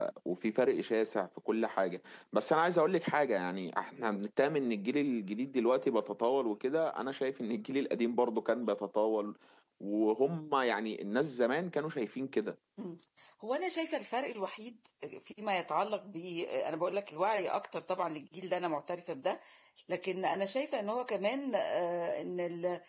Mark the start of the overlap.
none

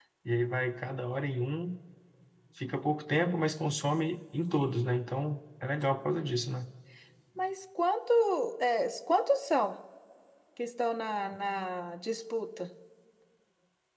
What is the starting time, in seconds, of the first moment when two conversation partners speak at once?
none

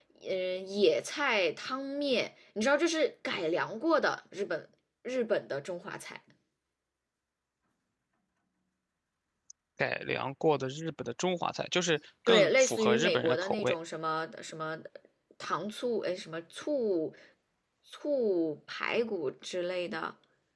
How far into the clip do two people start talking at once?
12.2 s

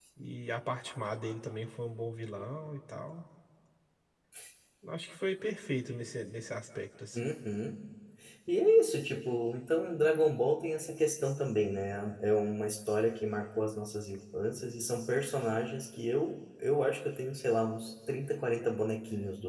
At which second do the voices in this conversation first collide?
none

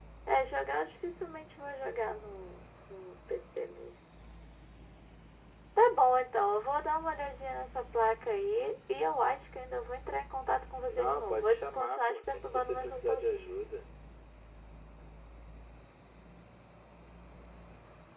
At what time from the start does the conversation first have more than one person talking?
10.9 s

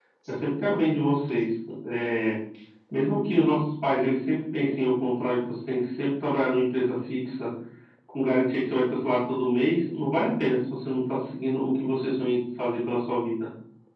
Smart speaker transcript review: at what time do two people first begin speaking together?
none

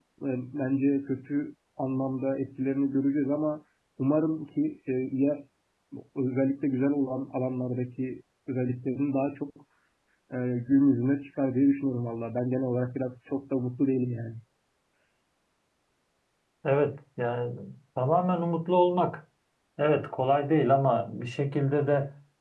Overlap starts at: none

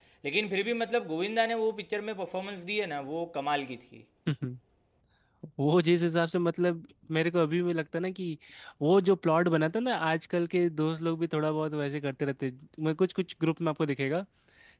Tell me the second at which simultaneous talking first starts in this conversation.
none

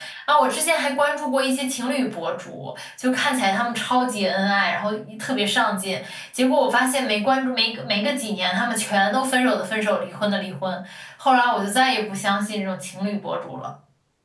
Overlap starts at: none

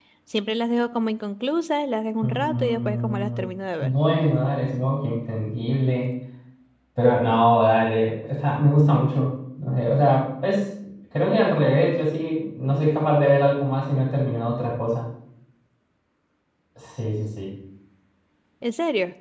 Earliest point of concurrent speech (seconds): 2.2 s

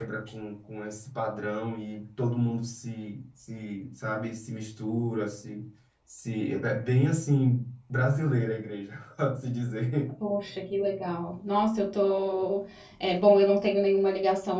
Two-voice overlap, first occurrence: none

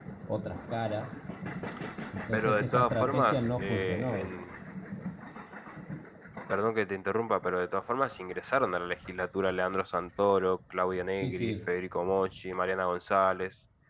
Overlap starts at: 2.3 s

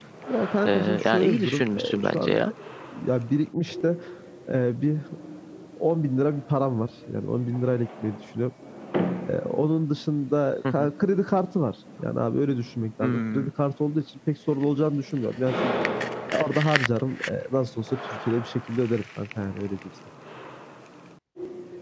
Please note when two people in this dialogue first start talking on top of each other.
0.7 s

